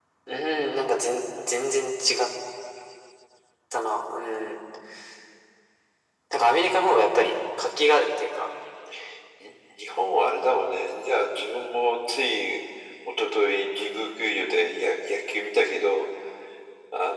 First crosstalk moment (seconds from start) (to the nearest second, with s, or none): none